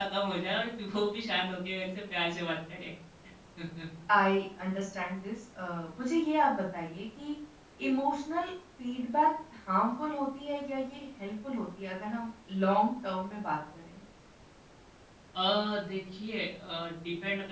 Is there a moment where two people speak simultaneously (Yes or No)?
No